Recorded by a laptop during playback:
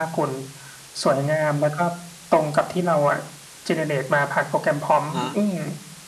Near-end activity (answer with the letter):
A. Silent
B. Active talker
B